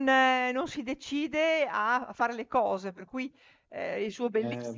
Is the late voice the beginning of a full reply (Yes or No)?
No